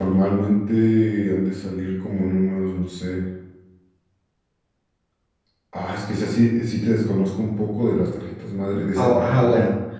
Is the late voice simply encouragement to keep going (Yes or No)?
No